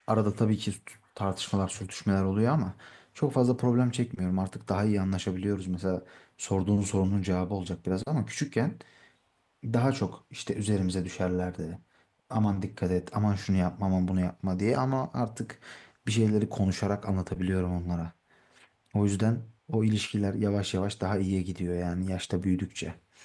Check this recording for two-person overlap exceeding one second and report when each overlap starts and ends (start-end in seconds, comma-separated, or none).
none